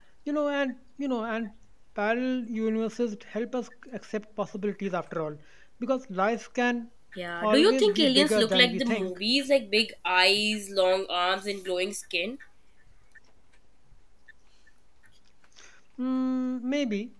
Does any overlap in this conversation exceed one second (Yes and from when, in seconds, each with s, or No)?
Yes, from 7.4 s